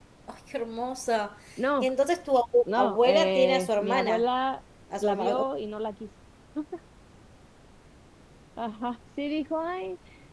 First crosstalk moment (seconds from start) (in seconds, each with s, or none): 2.6 s